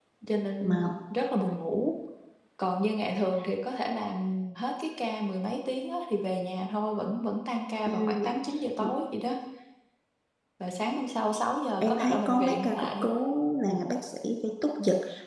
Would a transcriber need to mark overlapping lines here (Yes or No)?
Yes